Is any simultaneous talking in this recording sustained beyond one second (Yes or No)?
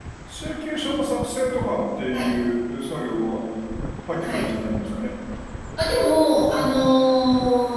No